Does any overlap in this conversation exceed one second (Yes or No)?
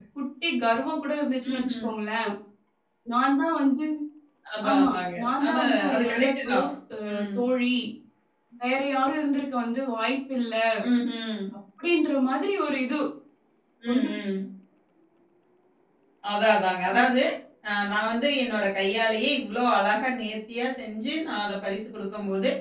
Yes